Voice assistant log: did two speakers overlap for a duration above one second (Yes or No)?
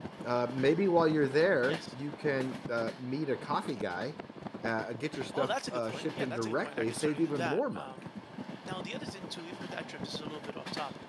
Yes